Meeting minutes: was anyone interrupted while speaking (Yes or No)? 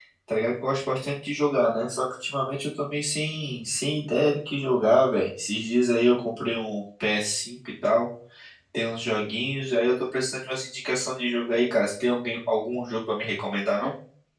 No